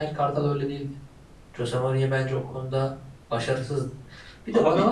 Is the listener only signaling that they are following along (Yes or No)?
Yes